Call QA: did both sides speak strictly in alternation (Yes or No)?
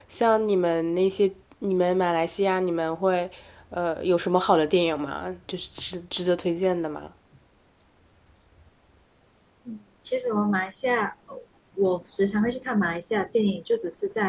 Yes